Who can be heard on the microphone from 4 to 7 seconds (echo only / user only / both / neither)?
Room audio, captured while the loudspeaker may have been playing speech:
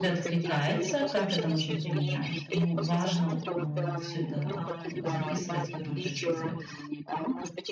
both